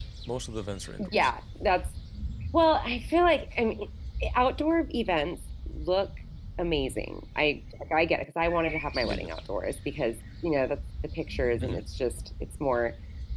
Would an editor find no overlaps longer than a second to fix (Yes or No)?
Yes